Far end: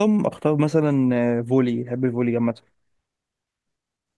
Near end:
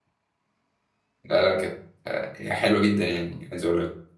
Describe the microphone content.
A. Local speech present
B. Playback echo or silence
A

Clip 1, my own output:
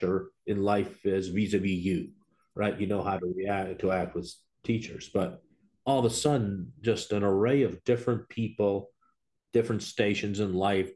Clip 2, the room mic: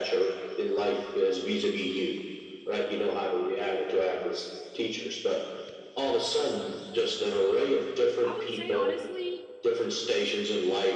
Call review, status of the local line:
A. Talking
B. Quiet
A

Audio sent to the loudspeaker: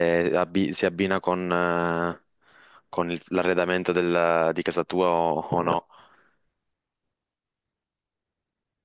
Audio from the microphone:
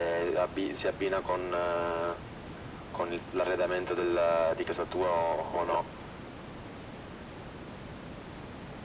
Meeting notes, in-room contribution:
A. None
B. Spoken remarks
A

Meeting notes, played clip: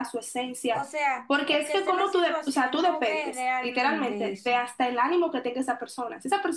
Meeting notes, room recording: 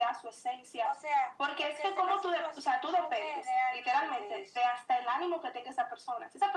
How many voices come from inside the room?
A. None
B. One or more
A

